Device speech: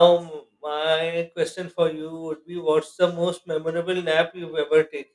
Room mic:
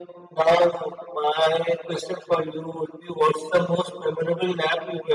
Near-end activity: none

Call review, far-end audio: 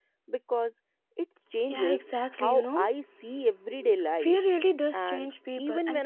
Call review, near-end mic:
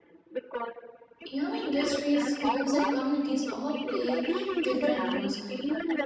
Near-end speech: present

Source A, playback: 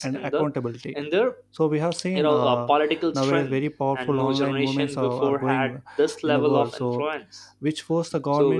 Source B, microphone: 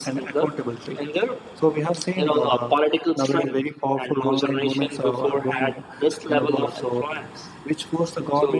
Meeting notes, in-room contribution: none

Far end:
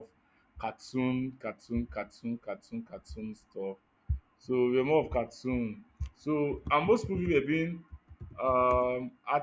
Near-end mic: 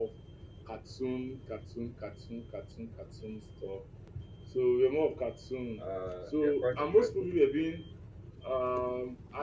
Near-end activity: present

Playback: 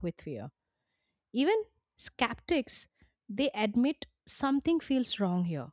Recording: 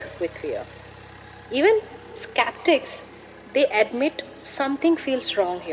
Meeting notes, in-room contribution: none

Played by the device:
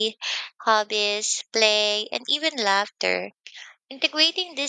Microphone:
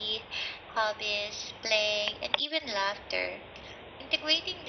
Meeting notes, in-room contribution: none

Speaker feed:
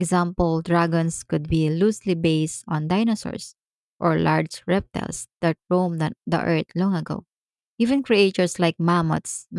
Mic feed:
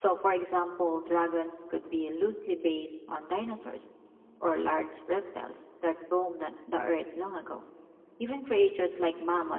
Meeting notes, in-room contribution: none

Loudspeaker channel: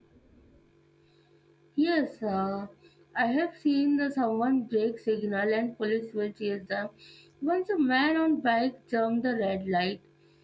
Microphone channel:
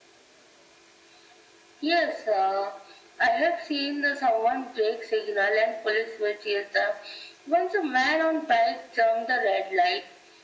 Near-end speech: none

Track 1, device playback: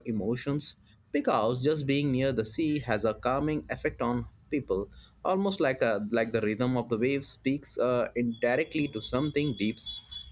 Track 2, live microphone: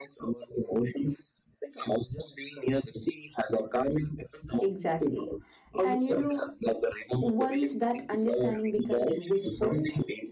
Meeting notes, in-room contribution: present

